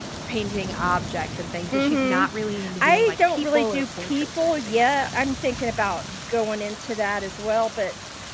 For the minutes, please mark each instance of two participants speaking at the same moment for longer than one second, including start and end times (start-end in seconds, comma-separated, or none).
2.8-5.1